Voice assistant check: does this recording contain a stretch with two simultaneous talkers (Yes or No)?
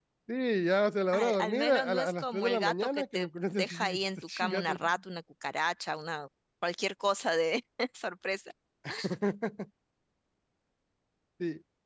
Yes